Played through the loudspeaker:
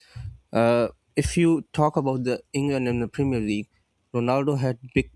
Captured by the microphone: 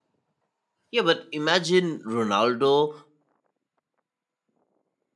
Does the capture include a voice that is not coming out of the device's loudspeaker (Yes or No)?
Yes